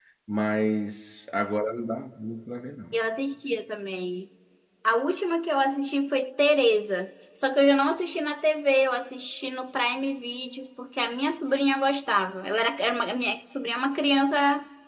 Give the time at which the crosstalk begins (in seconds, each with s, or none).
none